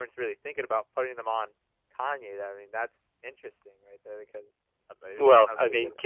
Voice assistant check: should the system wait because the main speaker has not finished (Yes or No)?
No